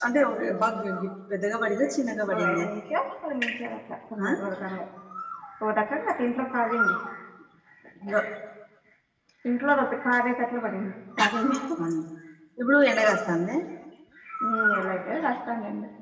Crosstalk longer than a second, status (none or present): none